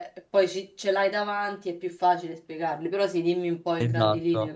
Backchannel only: No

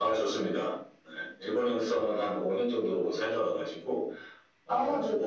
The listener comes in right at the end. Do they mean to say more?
No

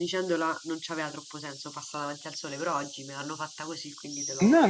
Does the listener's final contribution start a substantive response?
Yes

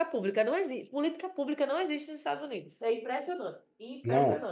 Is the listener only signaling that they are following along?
No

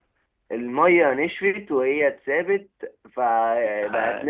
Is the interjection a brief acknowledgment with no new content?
Yes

